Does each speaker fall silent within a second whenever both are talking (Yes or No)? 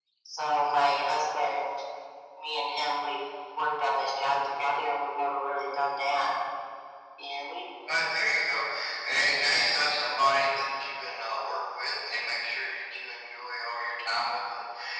Yes